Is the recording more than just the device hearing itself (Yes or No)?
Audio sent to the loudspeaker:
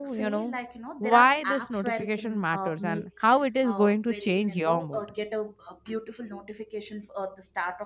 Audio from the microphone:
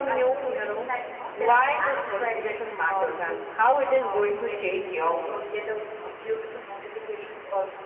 No